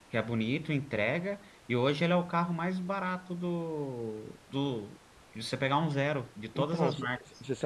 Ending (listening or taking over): taking over